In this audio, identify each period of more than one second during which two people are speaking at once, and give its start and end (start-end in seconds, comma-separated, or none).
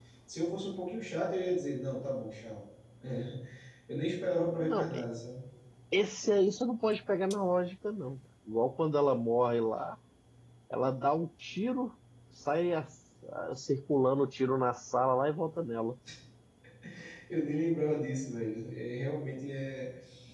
none